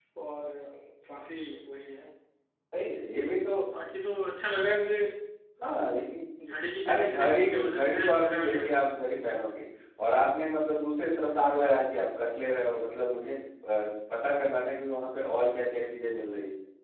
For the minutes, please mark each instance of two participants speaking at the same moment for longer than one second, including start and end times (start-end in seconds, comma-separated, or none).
6.9-8.7